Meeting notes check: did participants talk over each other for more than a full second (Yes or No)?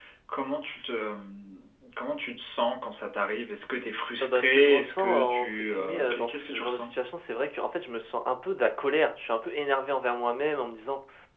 Yes